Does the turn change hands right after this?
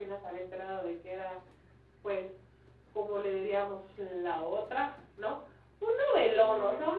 No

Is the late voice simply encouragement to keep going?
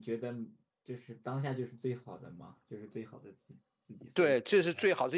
No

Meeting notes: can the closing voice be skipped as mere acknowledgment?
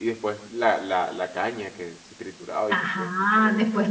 No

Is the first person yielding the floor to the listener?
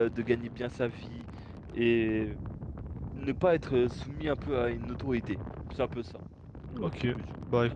Yes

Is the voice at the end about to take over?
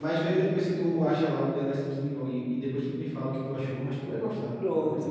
Yes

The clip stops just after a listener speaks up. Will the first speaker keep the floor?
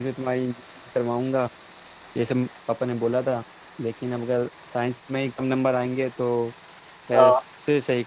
Yes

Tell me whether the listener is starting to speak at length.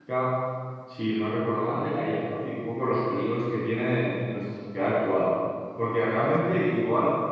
No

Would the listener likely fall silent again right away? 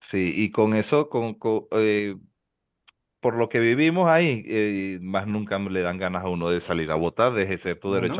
Yes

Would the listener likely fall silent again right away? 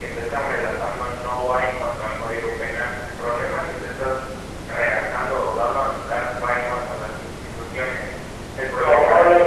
No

